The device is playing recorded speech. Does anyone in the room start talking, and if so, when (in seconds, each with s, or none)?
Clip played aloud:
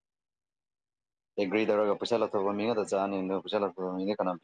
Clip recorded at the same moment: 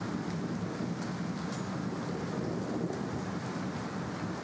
none